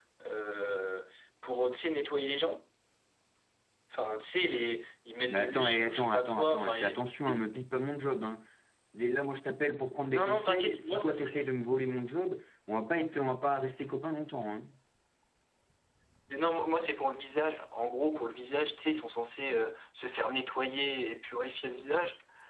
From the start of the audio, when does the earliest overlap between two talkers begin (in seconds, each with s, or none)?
5.3 s